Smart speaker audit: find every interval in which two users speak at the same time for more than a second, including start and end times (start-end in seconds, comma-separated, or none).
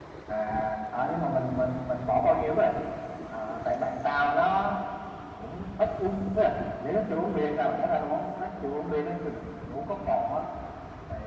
none